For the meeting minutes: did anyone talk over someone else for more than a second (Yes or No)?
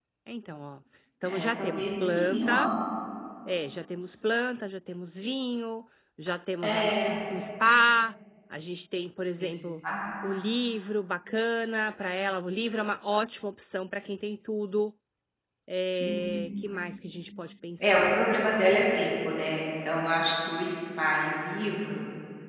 Yes